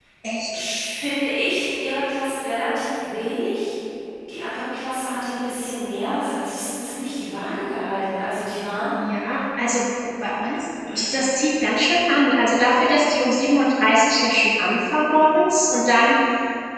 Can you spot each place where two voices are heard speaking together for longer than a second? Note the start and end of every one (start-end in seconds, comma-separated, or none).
none